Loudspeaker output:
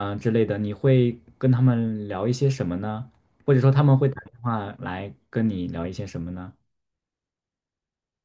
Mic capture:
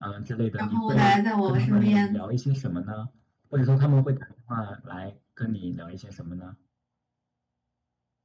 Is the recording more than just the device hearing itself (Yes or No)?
Yes